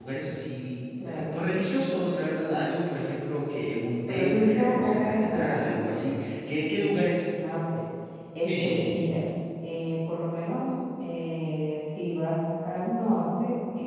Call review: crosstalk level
present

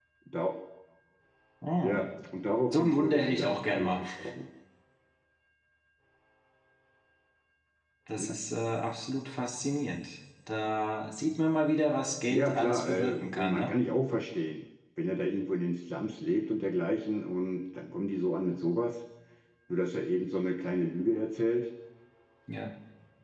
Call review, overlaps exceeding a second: present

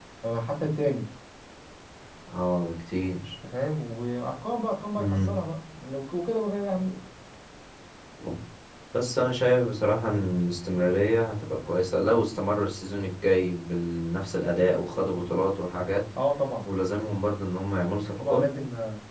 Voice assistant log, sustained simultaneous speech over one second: none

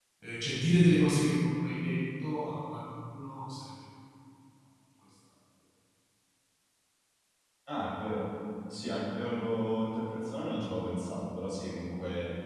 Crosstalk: none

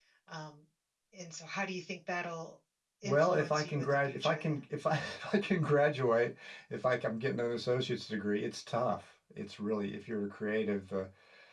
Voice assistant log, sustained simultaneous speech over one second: present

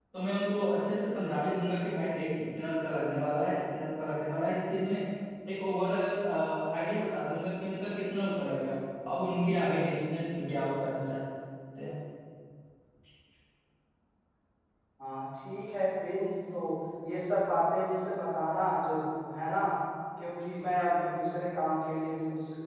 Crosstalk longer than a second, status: none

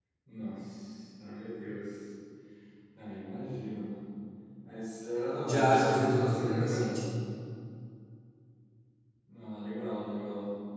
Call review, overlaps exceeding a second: present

